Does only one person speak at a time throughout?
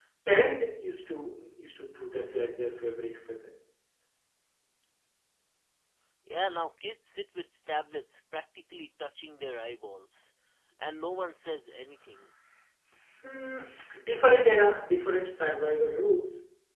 Yes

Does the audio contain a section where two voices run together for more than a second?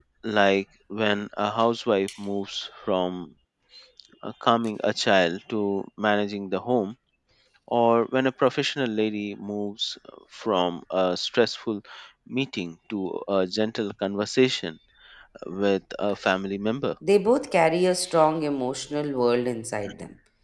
No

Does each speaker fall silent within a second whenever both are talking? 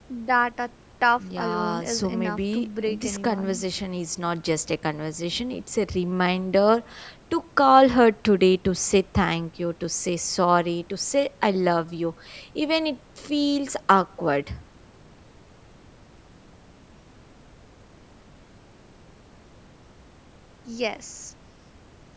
No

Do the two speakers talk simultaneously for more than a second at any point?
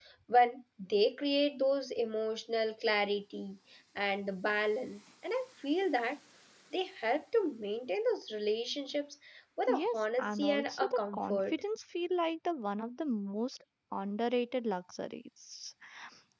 Yes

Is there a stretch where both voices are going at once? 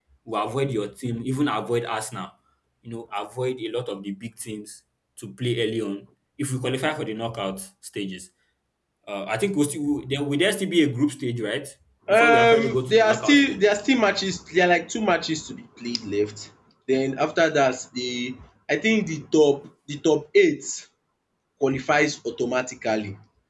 Yes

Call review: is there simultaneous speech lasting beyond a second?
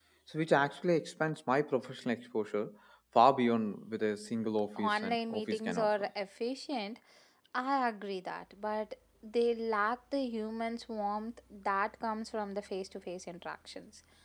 Yes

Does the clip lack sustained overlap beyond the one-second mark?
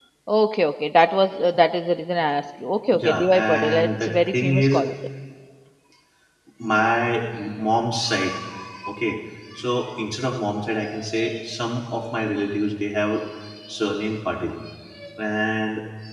No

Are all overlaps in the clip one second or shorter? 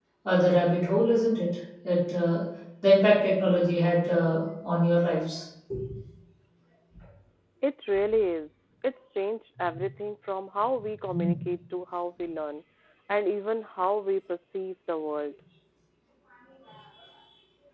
Yes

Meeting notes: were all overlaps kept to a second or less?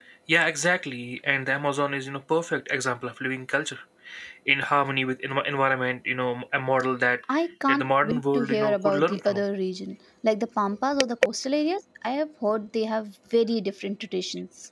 No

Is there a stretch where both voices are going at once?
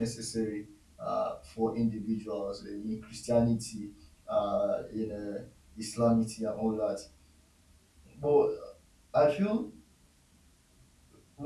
No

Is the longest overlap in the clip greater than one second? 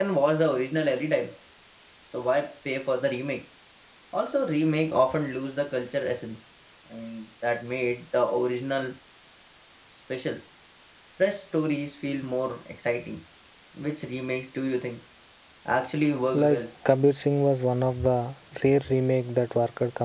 No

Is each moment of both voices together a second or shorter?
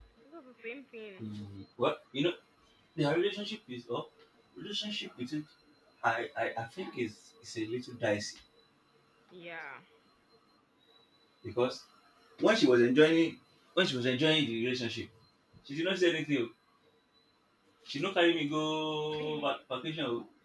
Yes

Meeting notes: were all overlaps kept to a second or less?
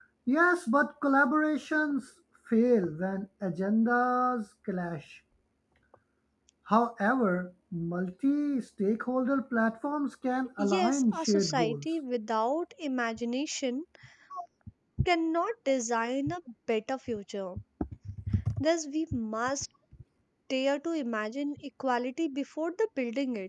No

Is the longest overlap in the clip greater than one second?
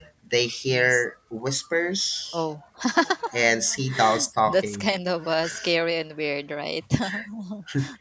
No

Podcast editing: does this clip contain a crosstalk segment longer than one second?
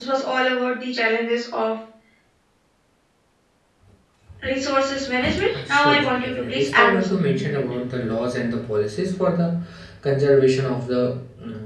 Yes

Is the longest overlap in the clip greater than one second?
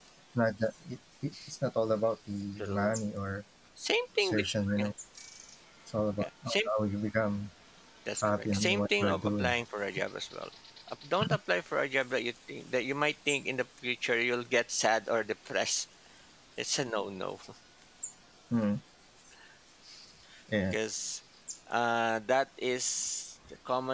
Yes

